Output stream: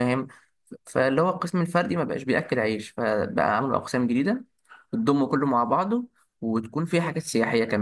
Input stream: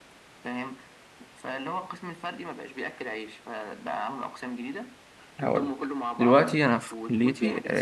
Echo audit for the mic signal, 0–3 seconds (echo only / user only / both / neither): echo only